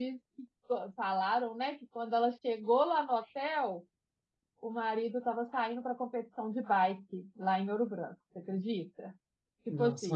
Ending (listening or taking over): taking over